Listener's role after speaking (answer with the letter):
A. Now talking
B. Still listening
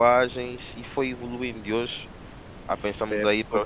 A